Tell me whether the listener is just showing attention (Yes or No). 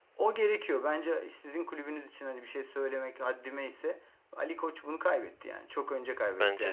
Yes